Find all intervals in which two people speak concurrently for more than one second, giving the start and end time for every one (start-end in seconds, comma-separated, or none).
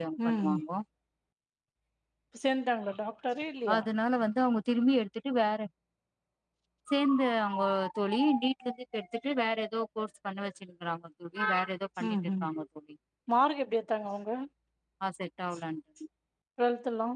none